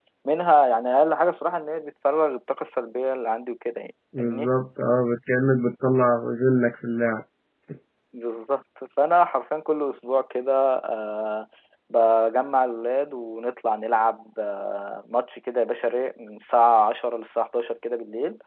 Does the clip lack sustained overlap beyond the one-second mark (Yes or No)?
Yes